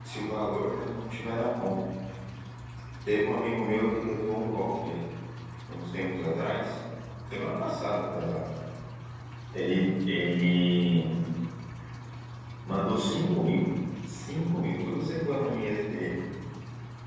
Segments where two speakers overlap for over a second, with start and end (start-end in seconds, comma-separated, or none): none